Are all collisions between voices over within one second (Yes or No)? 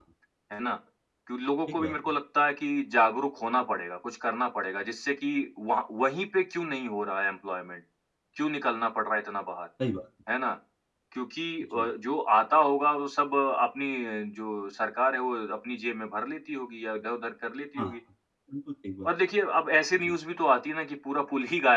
Yes